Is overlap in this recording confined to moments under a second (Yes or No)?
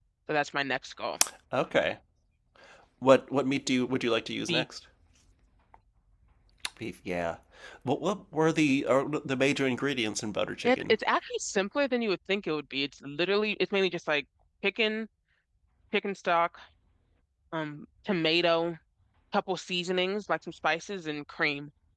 Yes